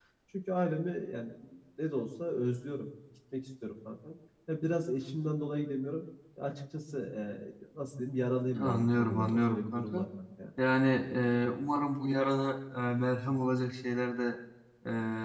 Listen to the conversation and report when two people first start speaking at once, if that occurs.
8.5 s

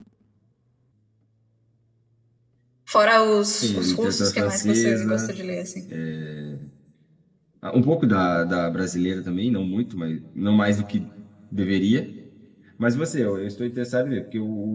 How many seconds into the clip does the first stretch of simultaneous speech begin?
3.6 s

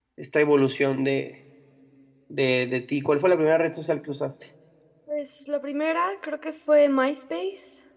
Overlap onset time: none

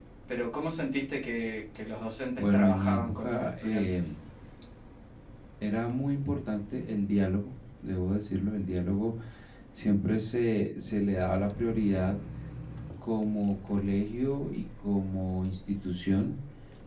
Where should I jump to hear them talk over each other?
2.4 s

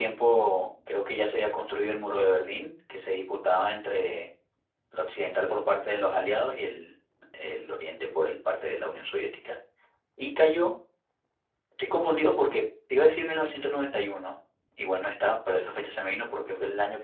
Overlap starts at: none

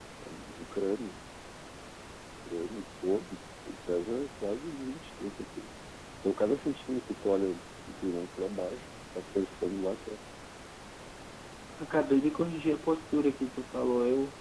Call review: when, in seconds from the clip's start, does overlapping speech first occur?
none

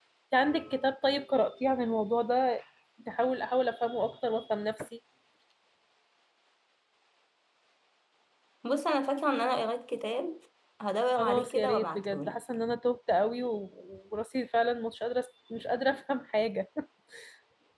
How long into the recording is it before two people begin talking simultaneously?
11.2 s

